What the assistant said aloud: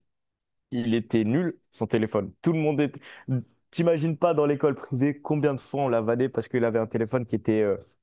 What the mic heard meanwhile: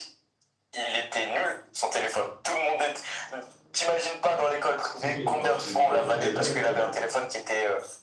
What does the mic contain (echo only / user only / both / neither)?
both